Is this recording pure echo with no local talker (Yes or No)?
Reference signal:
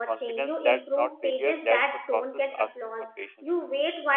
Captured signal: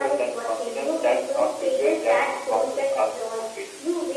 Yes